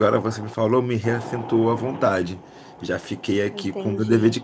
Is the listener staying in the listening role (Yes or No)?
Yes